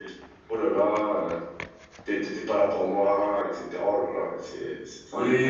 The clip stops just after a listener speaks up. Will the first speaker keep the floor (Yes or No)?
No